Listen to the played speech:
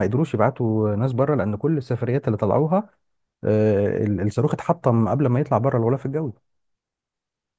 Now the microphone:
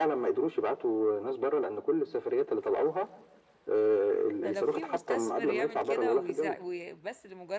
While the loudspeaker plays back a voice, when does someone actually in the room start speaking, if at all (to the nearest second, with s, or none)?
4 s